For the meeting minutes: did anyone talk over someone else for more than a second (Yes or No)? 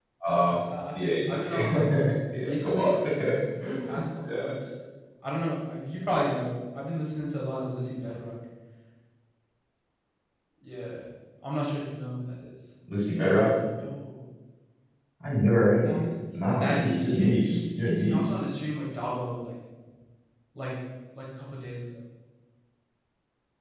Yes